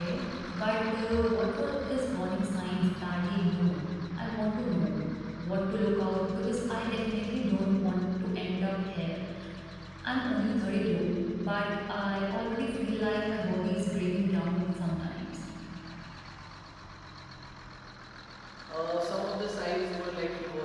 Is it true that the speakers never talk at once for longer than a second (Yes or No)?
Yes